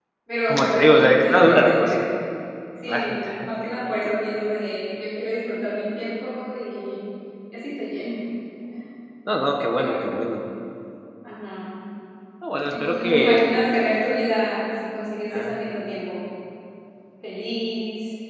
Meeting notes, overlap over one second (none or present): present